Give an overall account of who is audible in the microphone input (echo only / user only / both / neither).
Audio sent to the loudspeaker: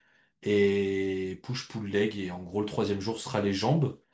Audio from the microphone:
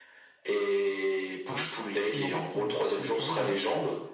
both